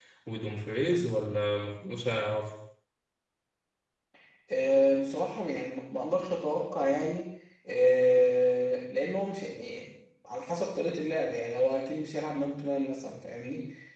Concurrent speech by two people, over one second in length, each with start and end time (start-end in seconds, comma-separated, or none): none